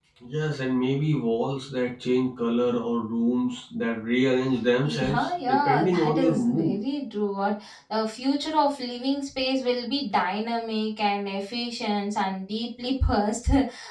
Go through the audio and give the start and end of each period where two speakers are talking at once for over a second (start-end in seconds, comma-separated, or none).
4.9-6.8